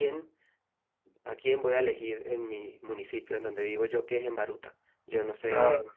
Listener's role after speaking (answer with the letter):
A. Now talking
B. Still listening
B